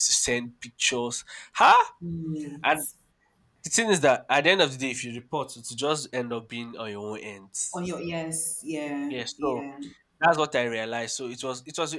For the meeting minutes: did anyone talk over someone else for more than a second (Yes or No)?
No